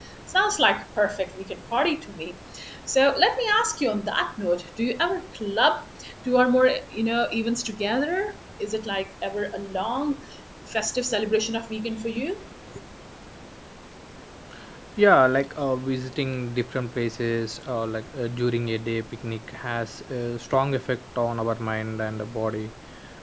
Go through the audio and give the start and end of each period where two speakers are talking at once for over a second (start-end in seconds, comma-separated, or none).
none